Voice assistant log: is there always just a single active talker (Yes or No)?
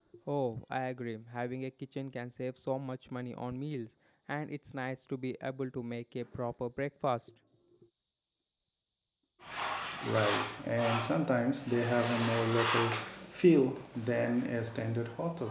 Yes